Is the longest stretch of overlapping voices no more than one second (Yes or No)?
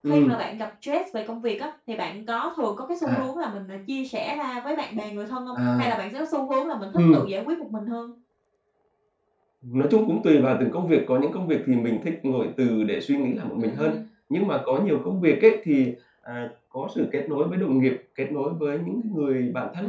Yes